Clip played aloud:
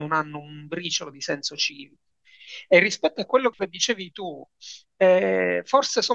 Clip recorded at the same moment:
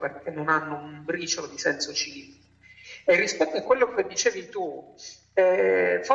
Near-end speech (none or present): none